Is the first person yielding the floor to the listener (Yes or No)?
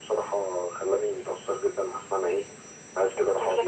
No